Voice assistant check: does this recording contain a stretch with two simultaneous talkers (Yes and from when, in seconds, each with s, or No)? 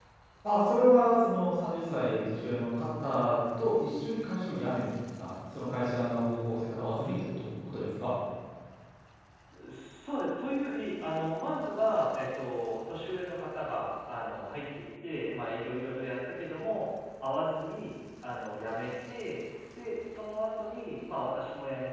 No